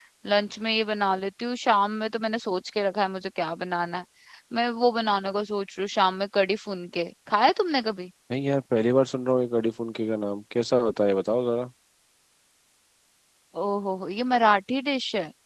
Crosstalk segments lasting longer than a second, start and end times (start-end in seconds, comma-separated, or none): none